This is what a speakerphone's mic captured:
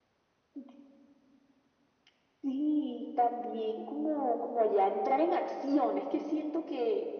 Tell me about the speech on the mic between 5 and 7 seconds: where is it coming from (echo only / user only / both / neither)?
echo only